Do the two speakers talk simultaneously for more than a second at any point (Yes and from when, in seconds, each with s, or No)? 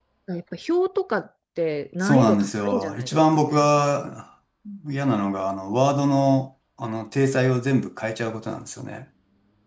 Yes, from 2.0 s